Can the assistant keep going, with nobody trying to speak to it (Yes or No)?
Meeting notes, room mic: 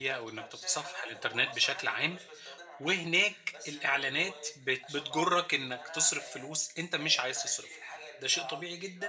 No